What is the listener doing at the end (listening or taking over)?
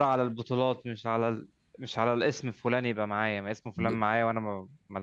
listening